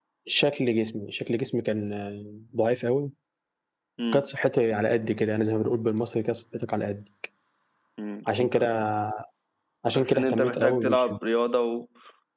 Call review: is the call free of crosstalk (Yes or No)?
No